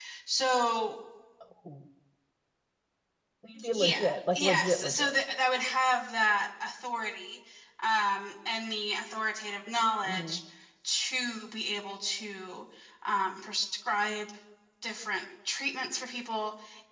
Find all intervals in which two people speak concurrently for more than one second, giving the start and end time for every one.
3.7-5.1

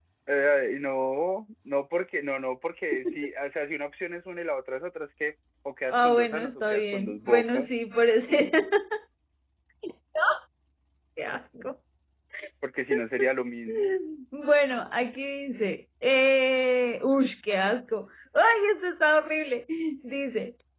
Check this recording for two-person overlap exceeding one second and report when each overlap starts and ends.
5.9-7.7

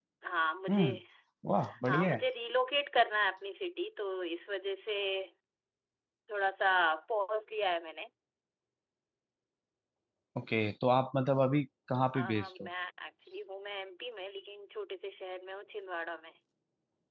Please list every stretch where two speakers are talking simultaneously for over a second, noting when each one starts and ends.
none

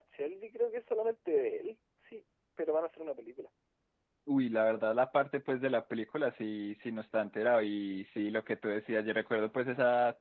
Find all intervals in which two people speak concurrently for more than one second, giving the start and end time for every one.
none

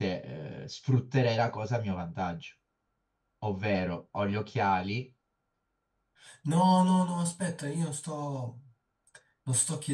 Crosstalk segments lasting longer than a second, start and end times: none

